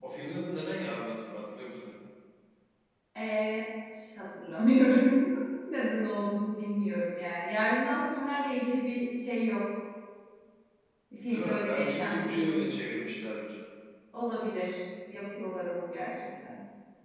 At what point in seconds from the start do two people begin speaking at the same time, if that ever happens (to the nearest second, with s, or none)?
11 s